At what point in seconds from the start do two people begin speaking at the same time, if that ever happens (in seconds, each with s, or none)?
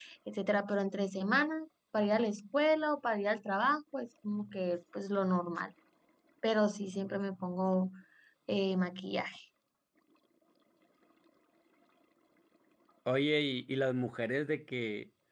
none